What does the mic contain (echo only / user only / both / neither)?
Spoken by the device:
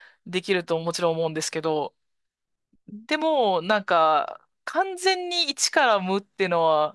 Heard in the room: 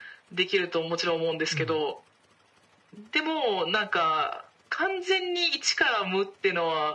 both